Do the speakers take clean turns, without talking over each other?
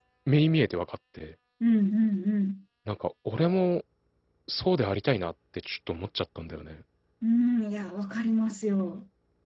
Yes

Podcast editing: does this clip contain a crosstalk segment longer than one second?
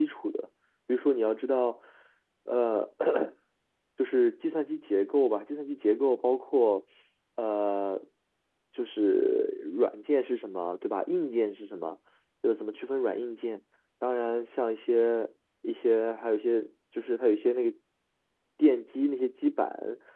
No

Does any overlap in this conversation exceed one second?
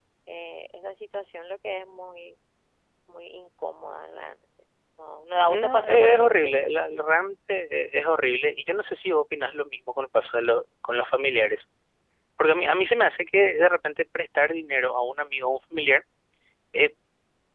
Yes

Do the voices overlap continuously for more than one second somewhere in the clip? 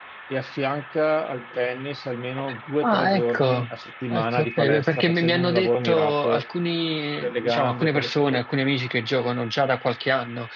Yes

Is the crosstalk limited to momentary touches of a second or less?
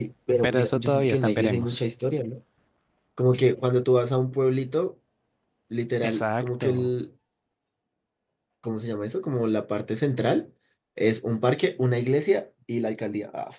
No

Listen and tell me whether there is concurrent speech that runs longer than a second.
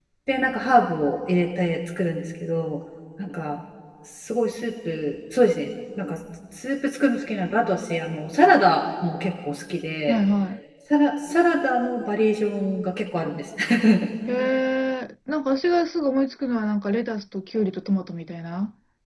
No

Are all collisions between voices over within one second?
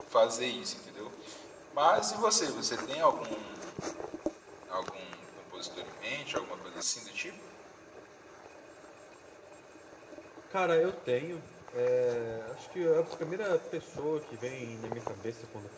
Yes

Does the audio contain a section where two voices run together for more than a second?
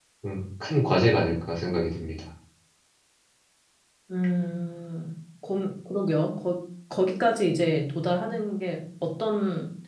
No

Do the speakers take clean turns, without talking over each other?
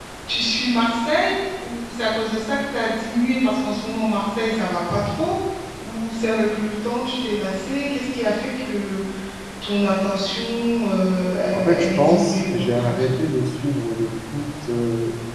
No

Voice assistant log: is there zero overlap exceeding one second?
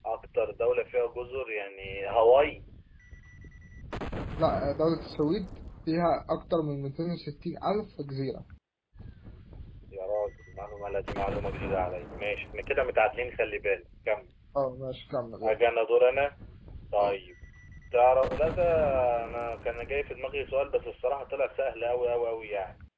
Yes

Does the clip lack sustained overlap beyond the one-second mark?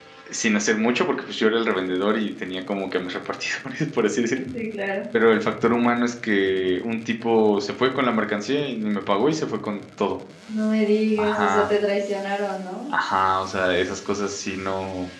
Yes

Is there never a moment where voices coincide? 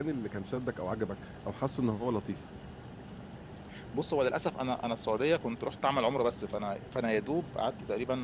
Yes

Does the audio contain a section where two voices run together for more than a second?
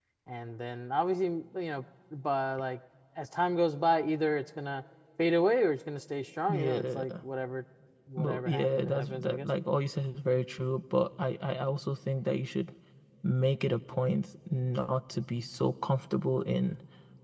Yes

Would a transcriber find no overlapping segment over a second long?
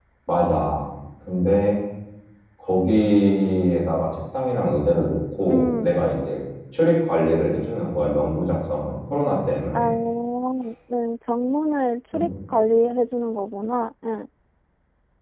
Yes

